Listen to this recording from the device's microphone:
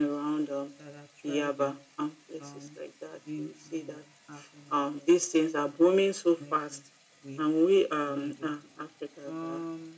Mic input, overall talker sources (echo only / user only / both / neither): both